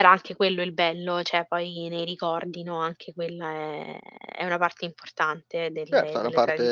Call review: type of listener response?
taking over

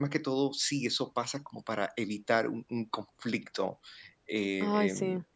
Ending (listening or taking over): listening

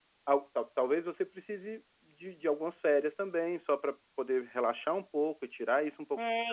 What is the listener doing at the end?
taking over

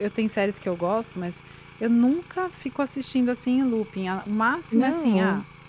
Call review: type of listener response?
listening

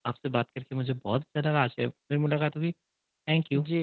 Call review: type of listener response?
taking over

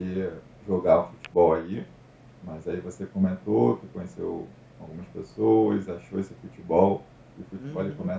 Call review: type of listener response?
taking over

